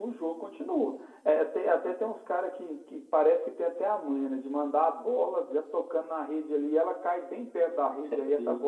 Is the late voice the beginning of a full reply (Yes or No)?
No